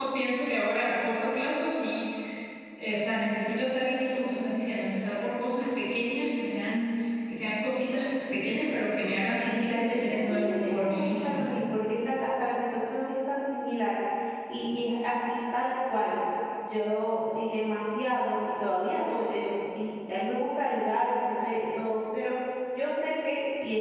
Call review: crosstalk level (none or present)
present